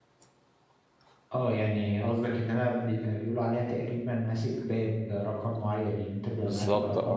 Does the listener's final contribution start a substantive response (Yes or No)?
No